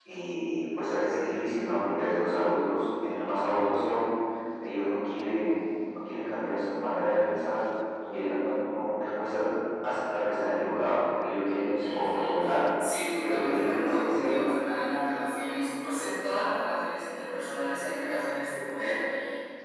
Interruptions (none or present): present